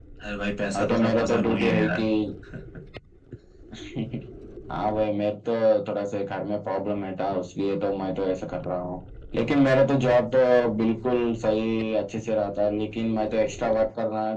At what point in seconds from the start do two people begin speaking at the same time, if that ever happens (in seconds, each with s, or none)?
0.7 s